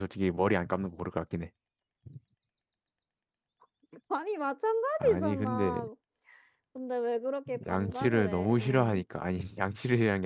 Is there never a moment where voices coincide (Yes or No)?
No